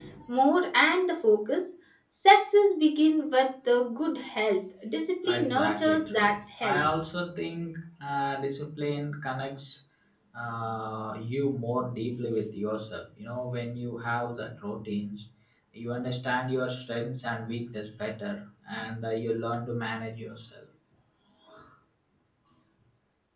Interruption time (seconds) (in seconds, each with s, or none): 5.2 s